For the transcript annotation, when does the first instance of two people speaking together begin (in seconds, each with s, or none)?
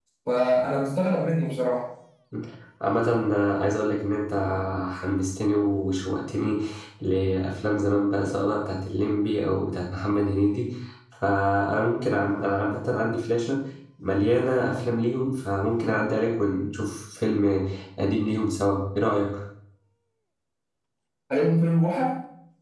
none